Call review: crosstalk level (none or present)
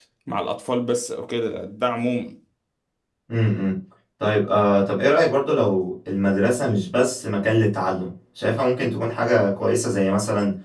none